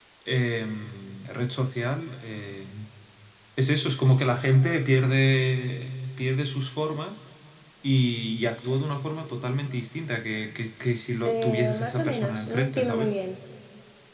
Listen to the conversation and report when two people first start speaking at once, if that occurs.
11.2 s

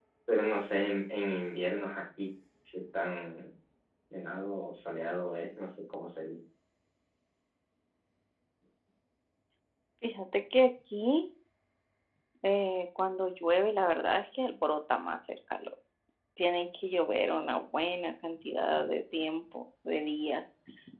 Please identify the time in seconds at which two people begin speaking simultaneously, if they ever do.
none

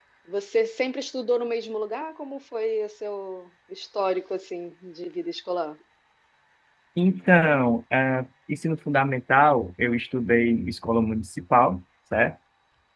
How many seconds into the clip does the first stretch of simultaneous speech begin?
none

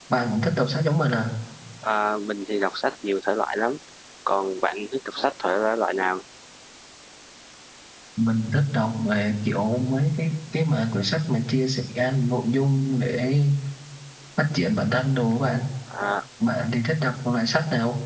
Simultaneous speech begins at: none

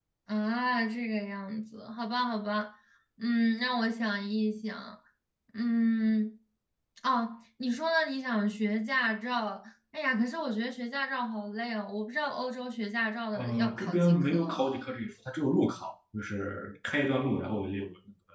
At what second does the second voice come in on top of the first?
13.3 s

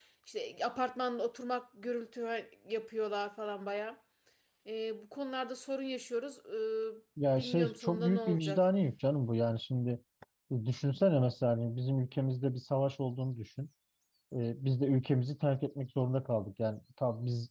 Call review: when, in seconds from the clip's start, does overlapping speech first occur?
7.4 s

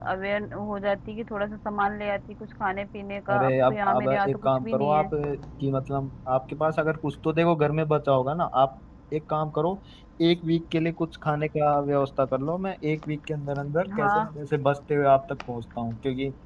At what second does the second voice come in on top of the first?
3.3 s

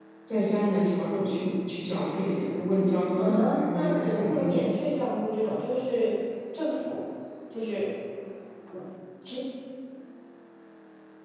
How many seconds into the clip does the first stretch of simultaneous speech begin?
3.2 s

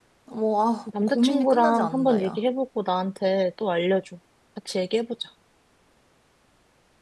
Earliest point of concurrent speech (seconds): 1.0 s

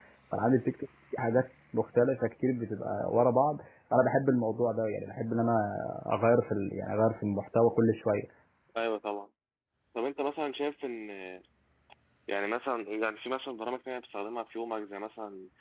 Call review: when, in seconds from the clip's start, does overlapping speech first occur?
none

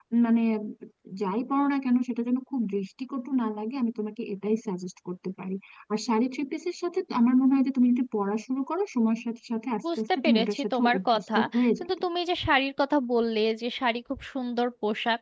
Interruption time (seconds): 9.8 s

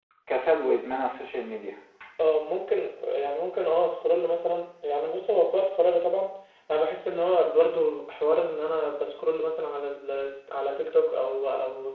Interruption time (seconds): none

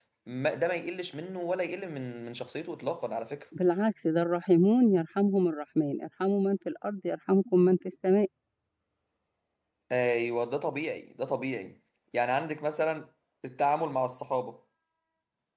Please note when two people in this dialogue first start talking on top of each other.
none

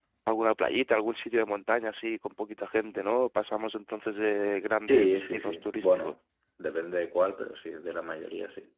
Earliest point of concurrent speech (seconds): 4.9 s

